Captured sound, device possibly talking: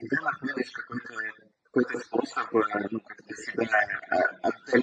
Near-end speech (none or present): none